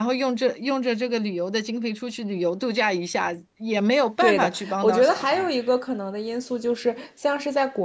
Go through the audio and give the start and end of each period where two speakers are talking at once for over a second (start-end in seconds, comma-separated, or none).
4.2-5.5